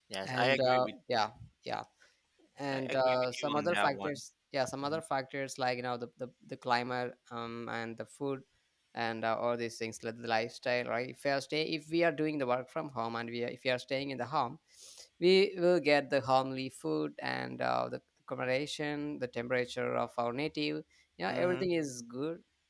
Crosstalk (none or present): present